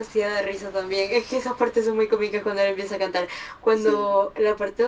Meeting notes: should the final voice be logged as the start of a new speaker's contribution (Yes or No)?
No